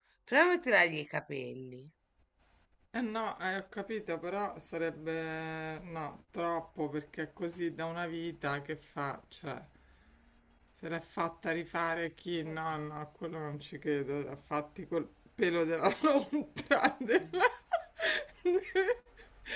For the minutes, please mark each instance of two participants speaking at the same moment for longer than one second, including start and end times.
none

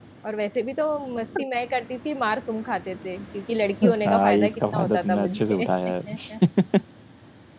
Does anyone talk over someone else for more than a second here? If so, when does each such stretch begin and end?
3.8-5.6

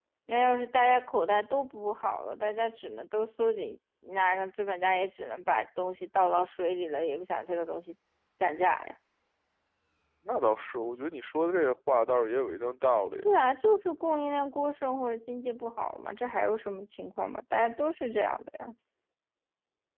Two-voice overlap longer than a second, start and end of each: none

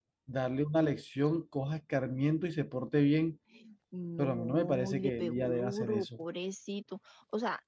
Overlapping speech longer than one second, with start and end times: 4.2-6.1

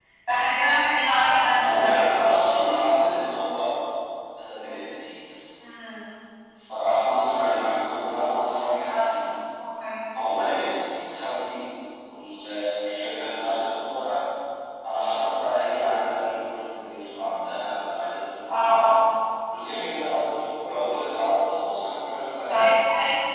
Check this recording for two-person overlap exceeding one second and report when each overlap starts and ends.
none

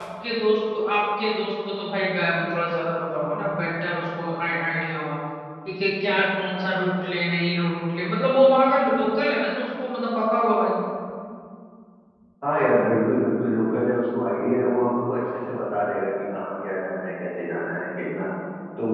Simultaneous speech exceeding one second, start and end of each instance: none

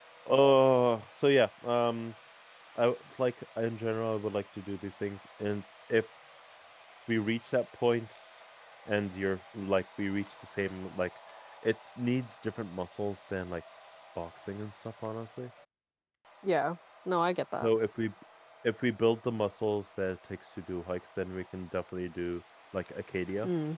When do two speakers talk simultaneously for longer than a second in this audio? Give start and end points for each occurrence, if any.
none

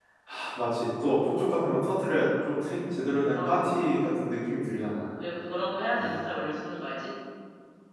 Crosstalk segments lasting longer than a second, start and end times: none

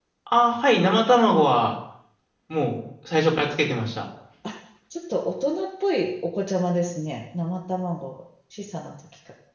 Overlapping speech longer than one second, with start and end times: none

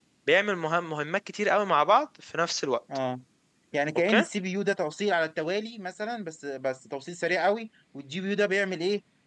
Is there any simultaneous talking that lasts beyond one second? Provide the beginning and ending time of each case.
none

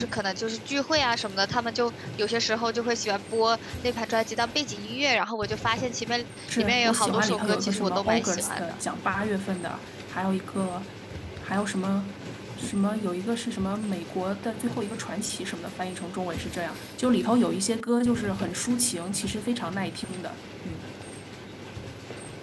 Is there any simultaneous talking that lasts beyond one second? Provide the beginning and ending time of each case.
6.6-8.8

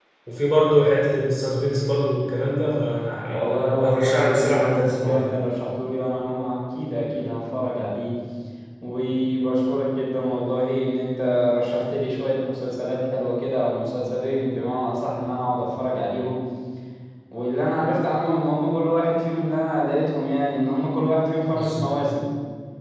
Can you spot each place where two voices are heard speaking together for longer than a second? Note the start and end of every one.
3.3-5.3

